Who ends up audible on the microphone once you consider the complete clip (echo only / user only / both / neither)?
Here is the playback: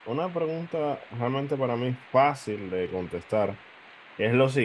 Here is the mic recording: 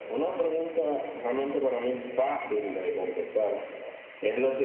echo only